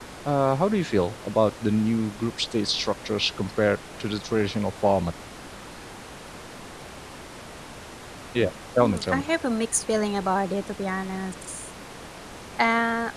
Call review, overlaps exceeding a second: none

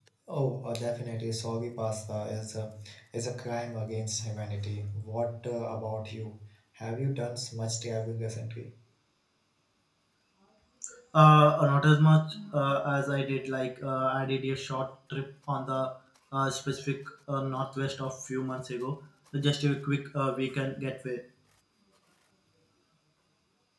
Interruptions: none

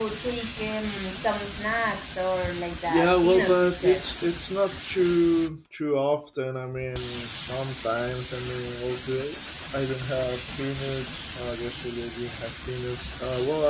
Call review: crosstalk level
present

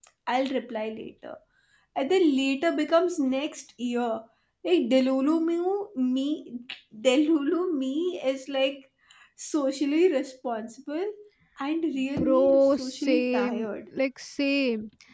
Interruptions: present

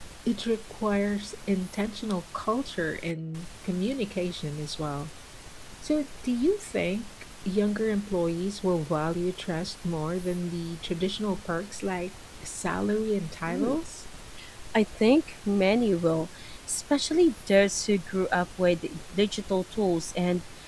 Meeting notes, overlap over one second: none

